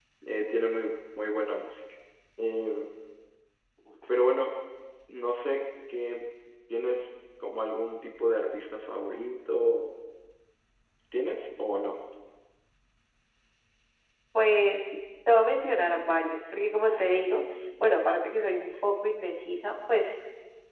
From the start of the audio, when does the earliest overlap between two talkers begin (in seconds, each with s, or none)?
none